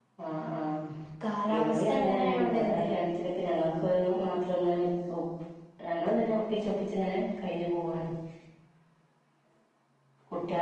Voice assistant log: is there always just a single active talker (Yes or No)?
No